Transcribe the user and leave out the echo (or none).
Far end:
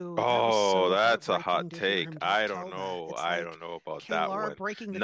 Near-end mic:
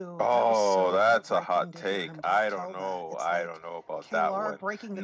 none